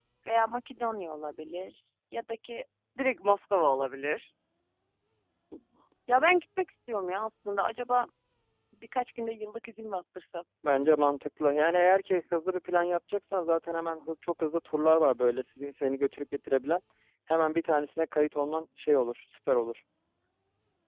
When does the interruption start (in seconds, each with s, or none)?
none